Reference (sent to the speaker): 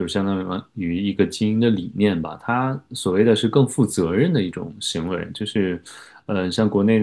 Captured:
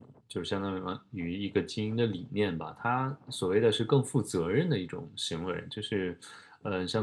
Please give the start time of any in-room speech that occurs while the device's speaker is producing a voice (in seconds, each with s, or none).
none